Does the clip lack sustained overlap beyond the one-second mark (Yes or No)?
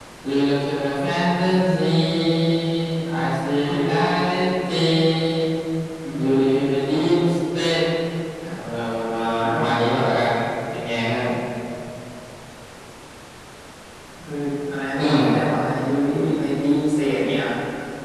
Yes